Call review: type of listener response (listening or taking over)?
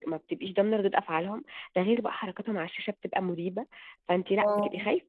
listening